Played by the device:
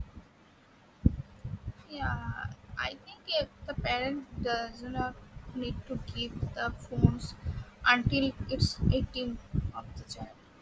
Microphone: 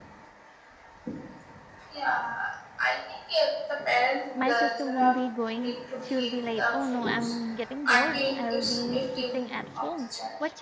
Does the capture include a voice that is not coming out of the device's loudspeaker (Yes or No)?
Yes